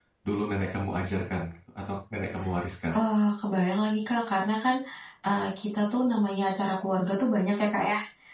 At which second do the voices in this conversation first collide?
none

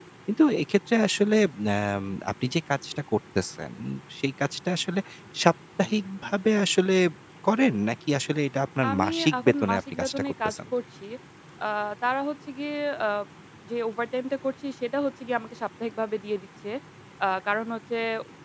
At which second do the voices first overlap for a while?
8.8 s

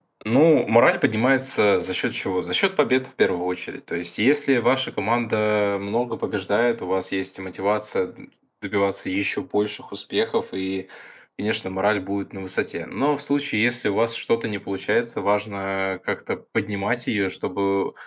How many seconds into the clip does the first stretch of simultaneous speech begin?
none

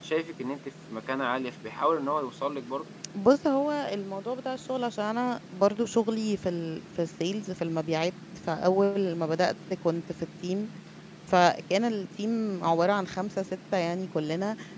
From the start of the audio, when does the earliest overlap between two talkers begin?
none

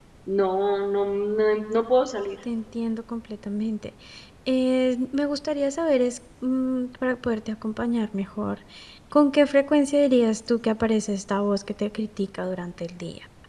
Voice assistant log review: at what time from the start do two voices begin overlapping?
none

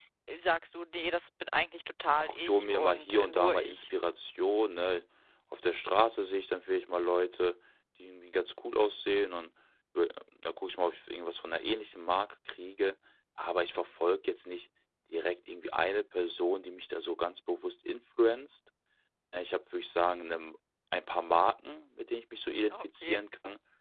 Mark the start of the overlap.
2.1 s

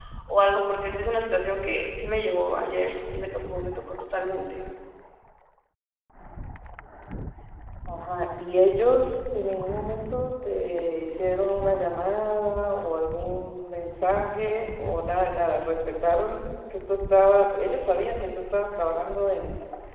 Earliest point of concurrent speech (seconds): none

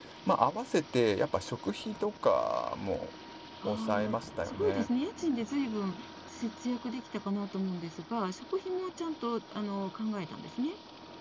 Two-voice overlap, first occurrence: 3.6 s

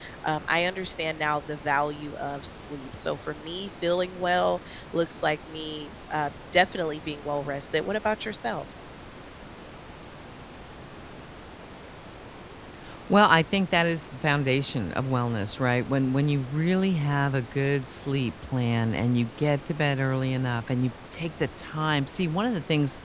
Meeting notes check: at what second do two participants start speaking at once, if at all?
none

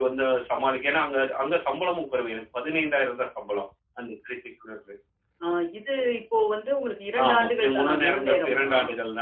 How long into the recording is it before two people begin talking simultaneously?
7.1 s

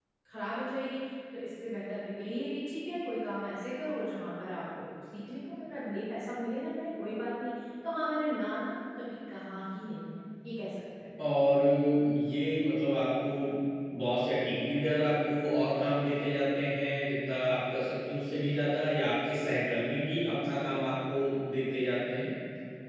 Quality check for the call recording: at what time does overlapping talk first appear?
none

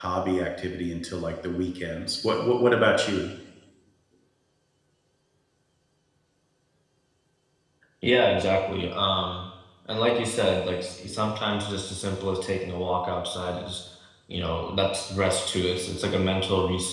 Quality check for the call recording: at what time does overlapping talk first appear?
none

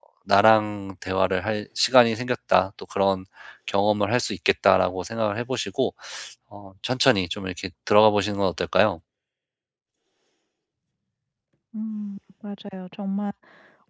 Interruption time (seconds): none

